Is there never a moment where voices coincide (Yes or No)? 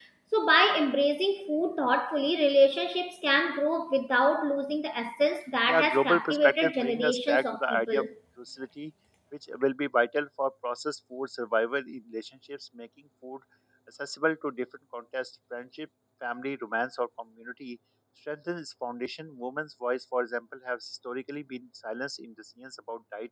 No